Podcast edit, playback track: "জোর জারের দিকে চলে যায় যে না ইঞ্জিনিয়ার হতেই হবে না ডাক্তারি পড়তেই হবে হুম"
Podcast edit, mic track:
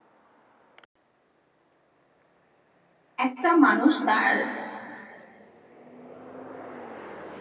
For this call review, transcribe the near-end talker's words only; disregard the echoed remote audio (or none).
একটা মানুষ তার